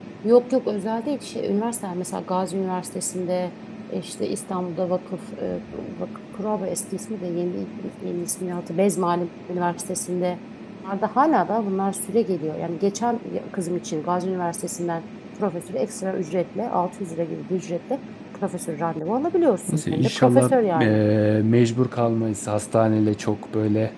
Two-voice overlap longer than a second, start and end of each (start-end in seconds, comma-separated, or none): 19.7-21.0